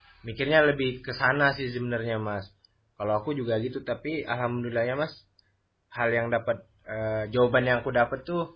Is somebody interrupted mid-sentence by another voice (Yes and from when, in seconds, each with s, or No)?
No